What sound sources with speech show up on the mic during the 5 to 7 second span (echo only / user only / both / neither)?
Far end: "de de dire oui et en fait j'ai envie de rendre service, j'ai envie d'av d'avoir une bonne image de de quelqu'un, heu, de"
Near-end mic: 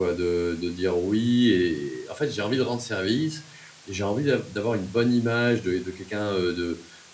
echo only